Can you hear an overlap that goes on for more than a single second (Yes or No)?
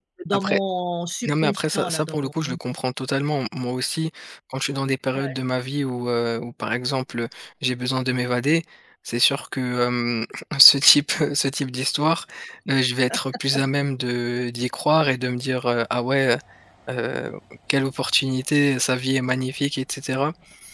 Yes